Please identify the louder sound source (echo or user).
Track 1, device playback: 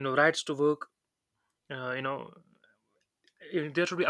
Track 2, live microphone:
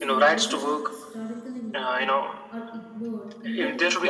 echo